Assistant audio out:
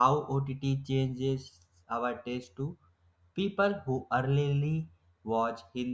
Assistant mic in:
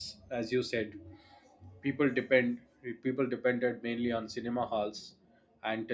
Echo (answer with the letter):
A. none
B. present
A